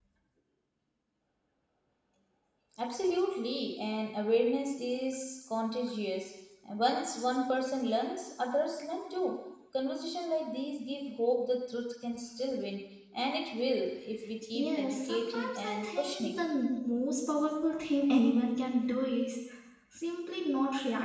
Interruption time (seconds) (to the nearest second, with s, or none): 15 s